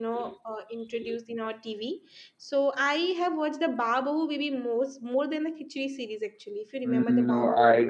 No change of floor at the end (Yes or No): No